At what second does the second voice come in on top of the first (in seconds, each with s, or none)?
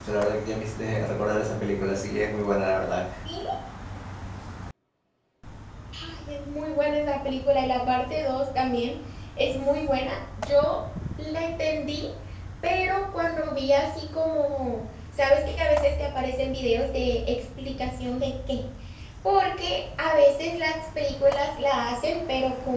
none